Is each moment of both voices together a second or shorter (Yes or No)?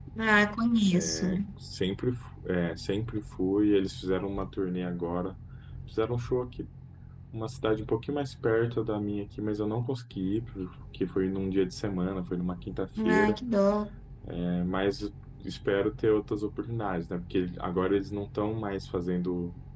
Yes